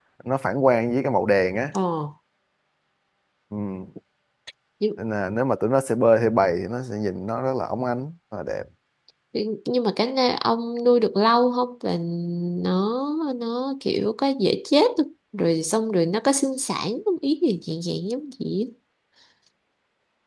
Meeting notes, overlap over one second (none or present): none